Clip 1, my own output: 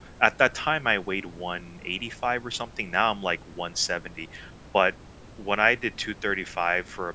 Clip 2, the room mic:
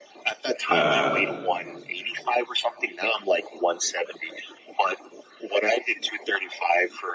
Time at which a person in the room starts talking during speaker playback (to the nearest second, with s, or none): 1 s